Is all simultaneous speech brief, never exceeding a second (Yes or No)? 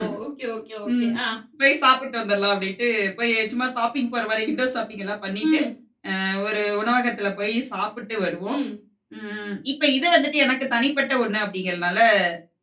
Yes